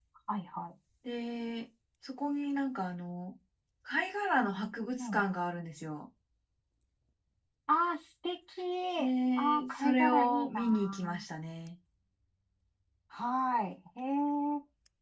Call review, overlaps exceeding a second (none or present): present